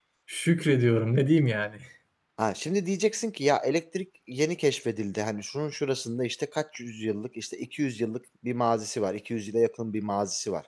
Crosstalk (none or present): none